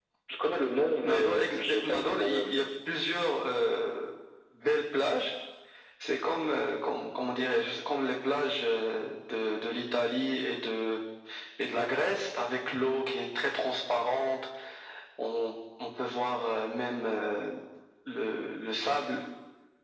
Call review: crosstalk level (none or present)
present